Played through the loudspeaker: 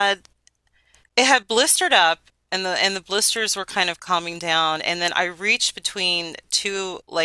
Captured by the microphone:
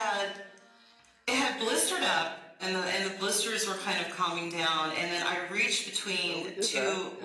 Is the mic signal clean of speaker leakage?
No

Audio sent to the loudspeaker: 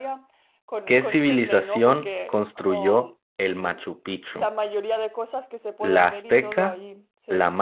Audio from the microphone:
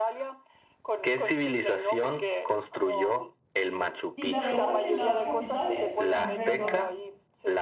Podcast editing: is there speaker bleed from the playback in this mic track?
Yes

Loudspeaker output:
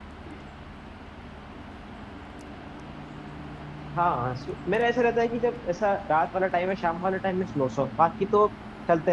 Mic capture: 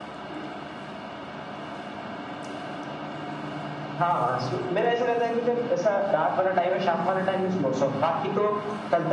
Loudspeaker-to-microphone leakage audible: Yes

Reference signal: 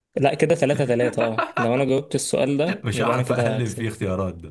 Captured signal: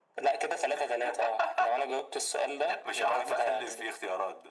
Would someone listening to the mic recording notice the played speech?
Yes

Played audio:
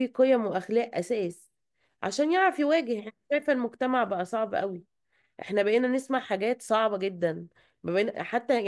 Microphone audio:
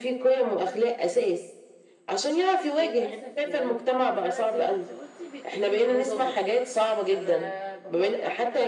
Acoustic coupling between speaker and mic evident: Yes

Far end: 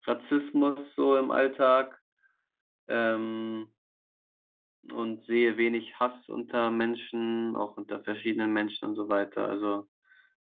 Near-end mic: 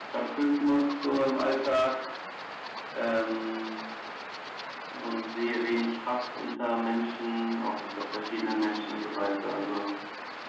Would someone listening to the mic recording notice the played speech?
Yes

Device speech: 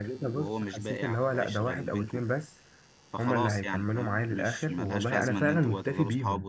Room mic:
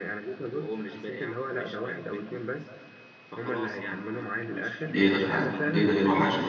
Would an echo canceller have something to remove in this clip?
Yes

